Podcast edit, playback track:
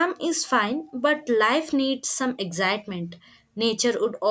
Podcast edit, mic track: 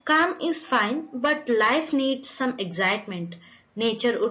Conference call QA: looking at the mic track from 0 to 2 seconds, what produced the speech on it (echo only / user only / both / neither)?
echo only